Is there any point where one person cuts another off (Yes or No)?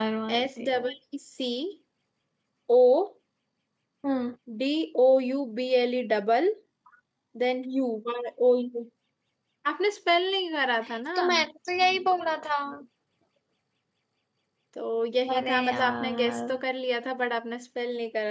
Yes